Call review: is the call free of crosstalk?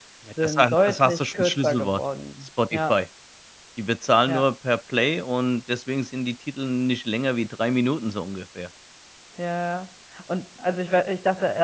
No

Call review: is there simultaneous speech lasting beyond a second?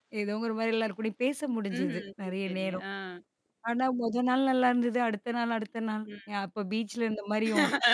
Yes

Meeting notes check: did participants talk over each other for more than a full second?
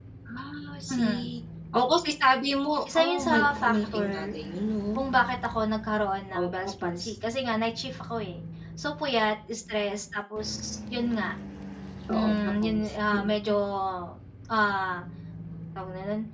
Yes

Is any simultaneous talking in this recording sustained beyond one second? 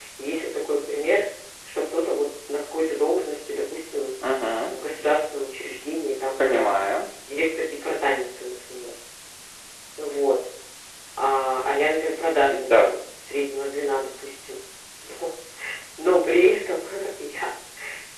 No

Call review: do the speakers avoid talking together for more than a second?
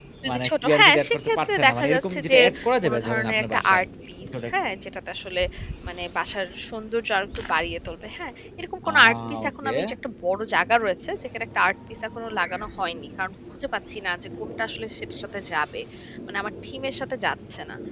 No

